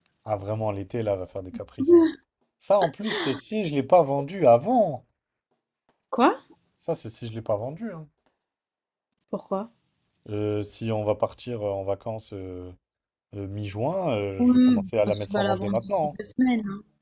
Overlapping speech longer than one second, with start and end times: 14.4-16.1

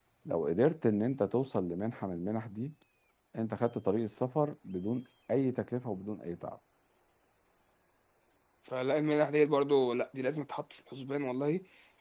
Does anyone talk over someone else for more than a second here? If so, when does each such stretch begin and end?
none

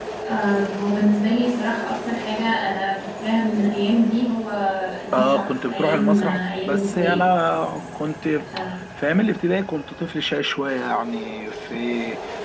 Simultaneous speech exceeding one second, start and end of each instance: 5.1-7.2

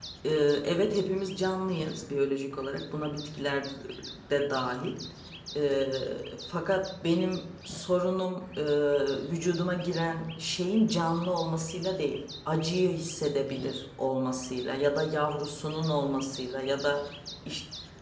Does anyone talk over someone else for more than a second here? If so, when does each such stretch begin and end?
none

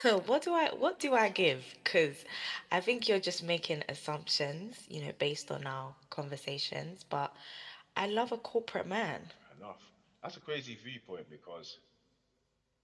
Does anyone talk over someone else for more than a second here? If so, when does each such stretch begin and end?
none

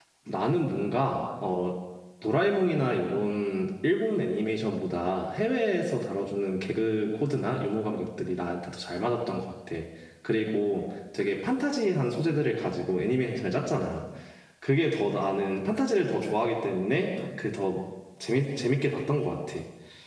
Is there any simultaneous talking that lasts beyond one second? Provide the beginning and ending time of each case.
none

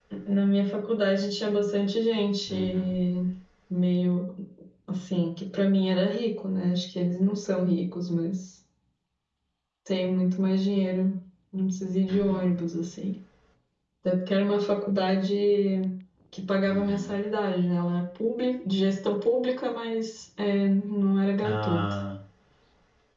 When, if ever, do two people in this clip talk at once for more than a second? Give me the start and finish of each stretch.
none

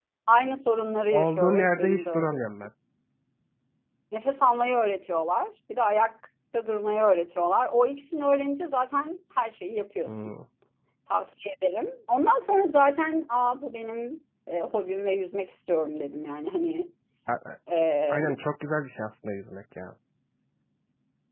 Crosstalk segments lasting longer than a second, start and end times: 1.1-2.4

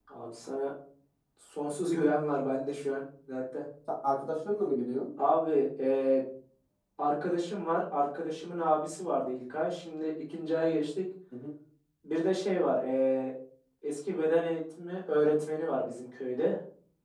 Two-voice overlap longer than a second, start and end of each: none

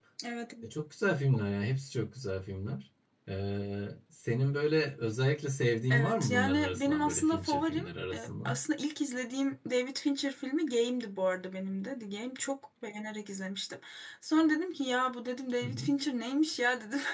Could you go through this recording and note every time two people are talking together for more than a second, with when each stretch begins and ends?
5.9-8.6

